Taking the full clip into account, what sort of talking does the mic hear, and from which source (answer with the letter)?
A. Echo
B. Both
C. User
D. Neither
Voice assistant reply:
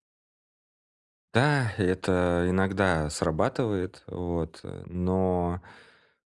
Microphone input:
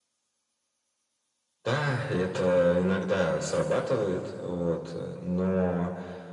A